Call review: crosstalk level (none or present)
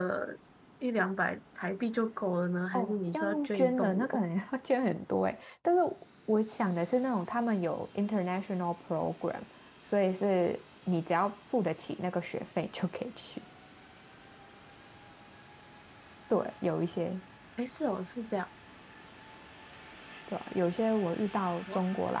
present